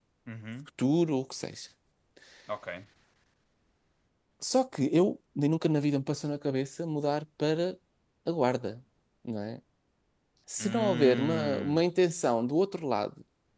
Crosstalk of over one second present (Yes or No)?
Yes